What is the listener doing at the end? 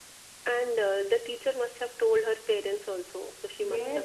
taking over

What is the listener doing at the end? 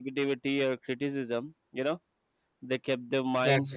listening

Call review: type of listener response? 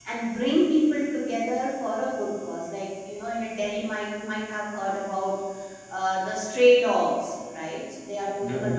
listening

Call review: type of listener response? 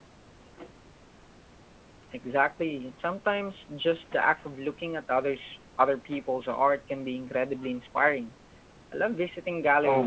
taking over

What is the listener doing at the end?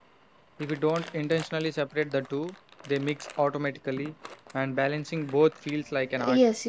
taking over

